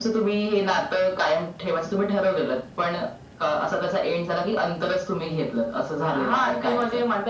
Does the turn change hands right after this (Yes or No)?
Yes